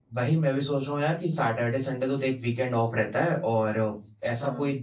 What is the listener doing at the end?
listening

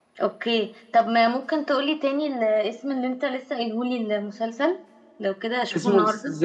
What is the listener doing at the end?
taking over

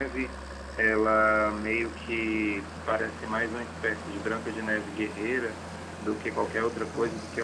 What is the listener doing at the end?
listening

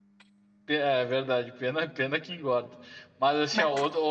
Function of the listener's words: listening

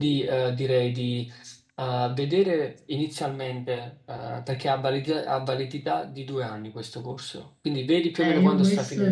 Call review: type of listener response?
taking over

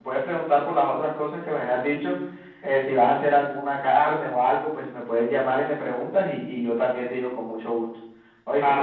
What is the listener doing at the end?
taking over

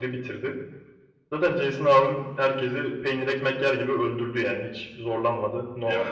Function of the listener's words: taking over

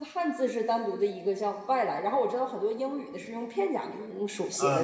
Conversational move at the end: taking over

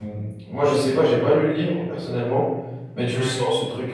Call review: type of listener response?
listening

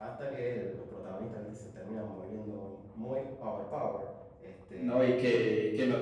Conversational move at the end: taking over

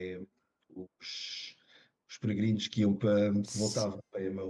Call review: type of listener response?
listening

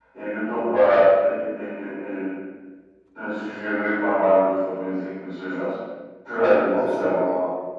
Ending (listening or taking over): taking over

